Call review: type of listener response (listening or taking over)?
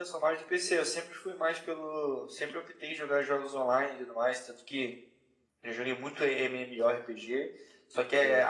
listening